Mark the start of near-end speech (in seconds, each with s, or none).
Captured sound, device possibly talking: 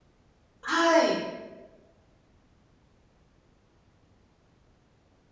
0.7 s